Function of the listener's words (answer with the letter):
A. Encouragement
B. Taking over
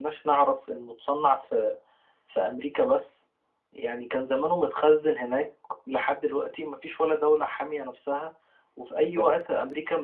A